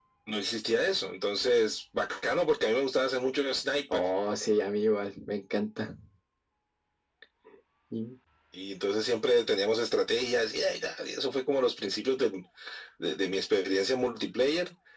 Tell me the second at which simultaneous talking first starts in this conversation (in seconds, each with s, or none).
none